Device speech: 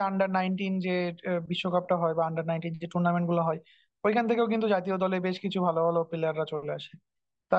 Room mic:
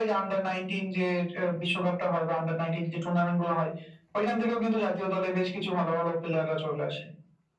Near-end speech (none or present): none